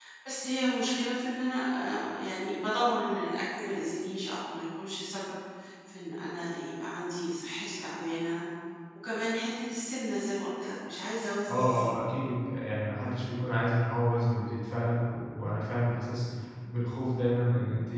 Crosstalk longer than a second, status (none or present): none